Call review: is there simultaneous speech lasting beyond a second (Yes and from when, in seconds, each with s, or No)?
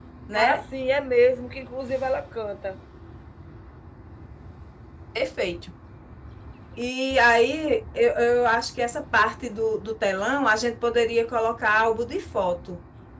No